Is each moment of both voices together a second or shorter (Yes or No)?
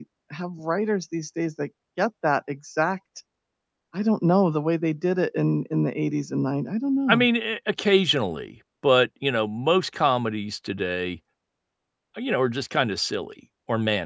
Yes